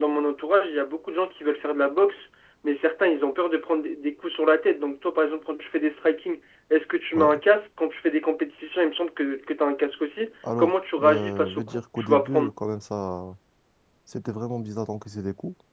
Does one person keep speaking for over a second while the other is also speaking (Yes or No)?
Yes